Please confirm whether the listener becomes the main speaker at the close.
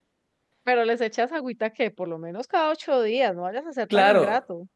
Yes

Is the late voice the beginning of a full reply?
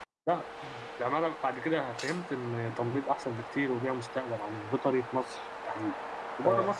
No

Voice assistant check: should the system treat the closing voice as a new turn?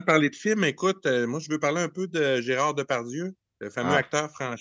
No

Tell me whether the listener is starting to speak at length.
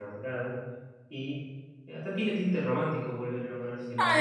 Yes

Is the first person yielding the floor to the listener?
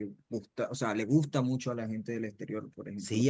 Yes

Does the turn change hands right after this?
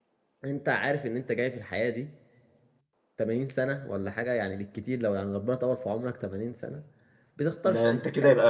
Yes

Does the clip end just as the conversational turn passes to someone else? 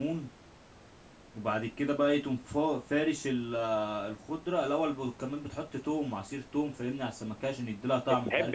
Yes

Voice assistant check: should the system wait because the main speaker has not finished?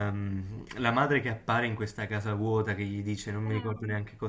Yes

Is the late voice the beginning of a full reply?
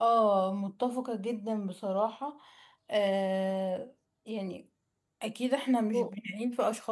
No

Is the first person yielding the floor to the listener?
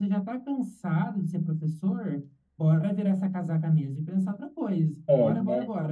Yes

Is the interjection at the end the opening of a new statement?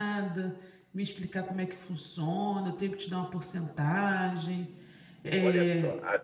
Yes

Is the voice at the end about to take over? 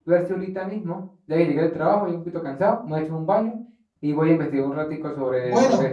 Yes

